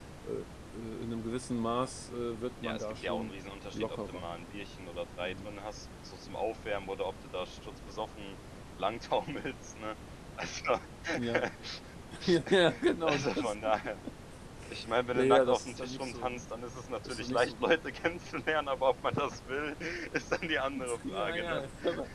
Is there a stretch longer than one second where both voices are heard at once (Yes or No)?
Yes